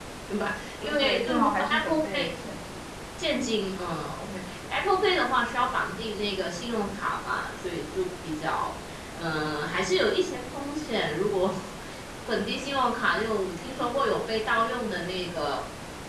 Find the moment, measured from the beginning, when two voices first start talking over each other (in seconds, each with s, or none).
0.8 s